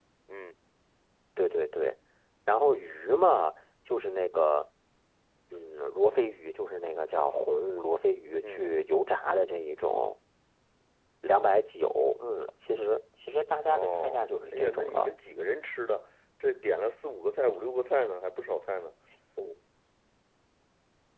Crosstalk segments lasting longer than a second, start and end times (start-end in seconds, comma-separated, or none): 13.7-15.1